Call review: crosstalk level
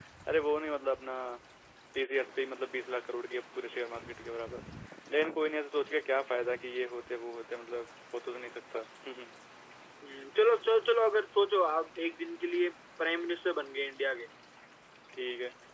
none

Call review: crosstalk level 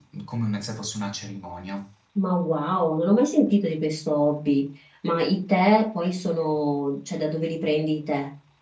none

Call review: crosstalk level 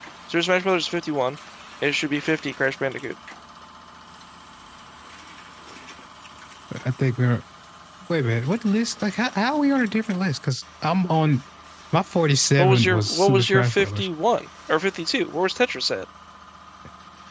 present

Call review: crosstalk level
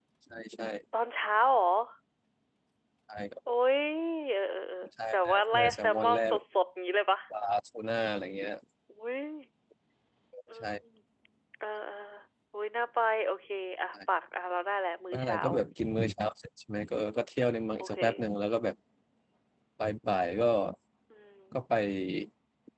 present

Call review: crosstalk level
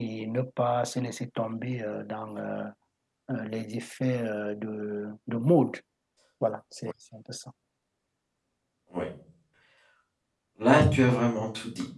none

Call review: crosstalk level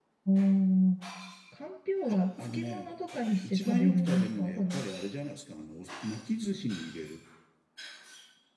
present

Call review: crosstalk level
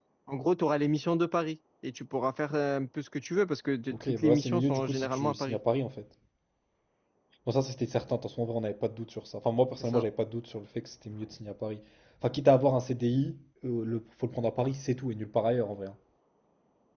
present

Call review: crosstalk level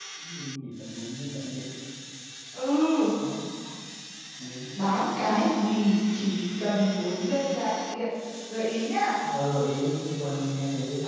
none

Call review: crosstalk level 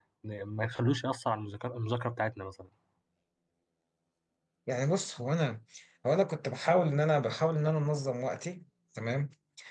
none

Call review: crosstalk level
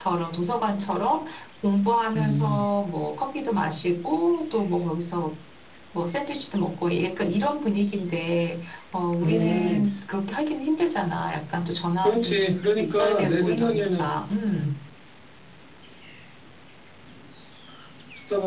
present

